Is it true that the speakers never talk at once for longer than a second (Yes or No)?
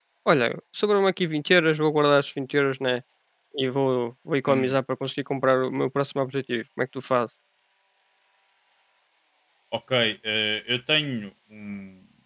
Yes